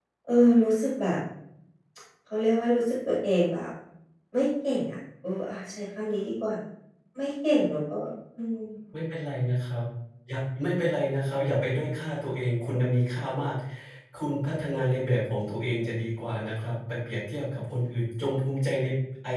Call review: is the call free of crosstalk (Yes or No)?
Yes